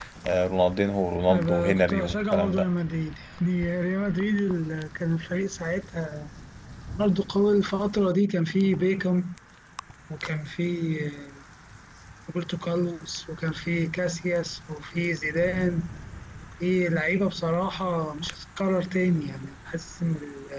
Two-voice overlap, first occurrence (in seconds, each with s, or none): 1.3 s